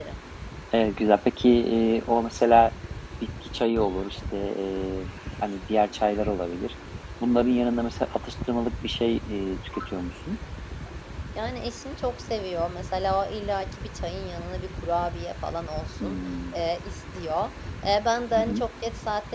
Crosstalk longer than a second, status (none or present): none